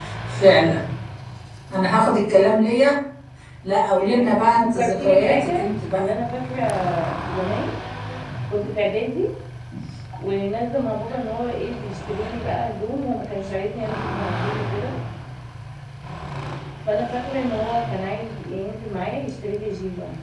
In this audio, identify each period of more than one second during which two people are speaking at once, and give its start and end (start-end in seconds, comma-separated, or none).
3.9-6.1